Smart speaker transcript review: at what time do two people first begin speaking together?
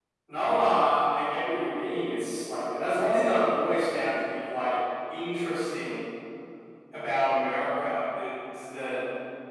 none

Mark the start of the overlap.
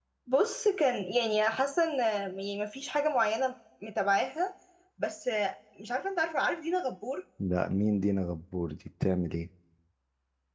none

